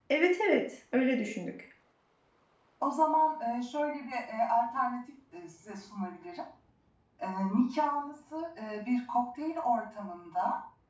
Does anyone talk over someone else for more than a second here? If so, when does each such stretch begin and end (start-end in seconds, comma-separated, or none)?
none